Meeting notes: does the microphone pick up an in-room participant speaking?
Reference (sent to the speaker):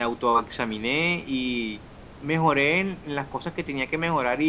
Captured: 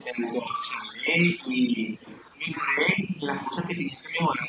No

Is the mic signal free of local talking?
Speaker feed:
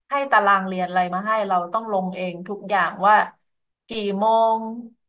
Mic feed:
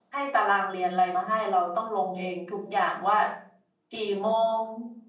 Yes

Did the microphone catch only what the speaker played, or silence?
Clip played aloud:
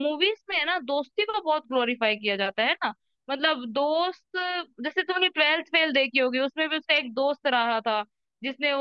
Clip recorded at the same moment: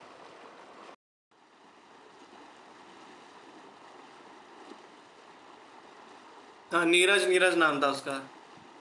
No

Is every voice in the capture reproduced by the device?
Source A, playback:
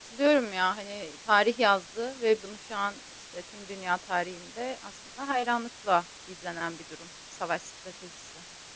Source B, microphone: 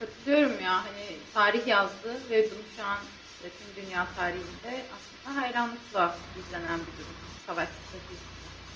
Yes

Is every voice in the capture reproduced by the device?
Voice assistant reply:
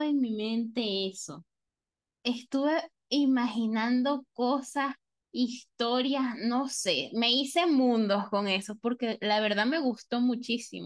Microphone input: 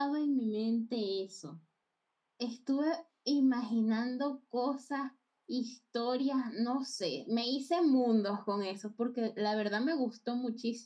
Yes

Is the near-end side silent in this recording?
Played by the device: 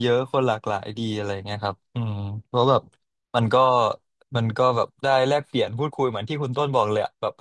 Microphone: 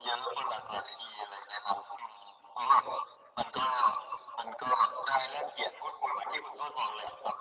Yes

